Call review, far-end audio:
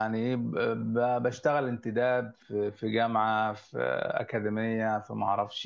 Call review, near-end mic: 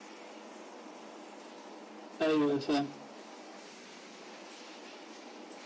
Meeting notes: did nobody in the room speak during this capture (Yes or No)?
No